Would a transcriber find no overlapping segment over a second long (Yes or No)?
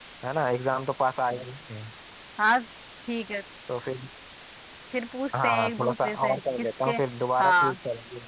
No